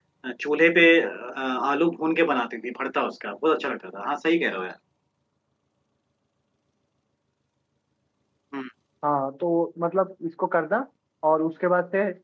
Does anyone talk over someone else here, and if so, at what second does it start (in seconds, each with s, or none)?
none